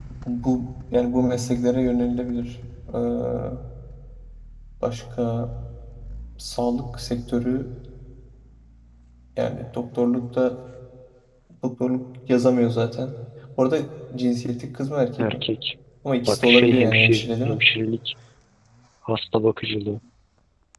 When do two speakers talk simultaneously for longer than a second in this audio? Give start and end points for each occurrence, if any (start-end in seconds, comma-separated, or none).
16.3-17.6